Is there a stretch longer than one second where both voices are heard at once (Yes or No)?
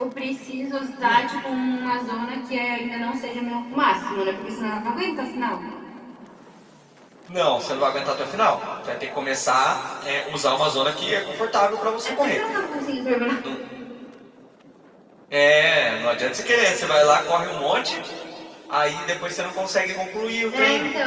No